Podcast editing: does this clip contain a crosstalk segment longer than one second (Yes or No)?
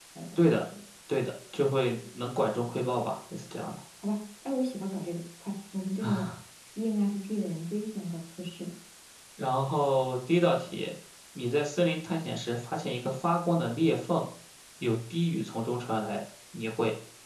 No